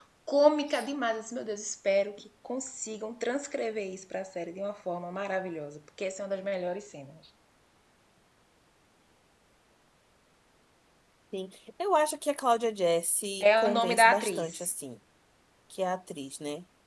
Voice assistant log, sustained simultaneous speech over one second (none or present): present